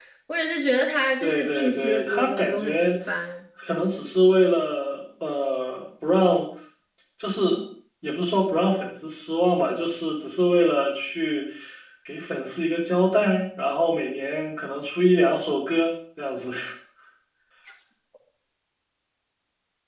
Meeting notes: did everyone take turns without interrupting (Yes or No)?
No